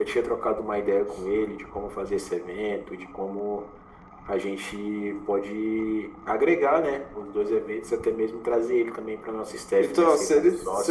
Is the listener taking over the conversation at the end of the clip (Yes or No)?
Yes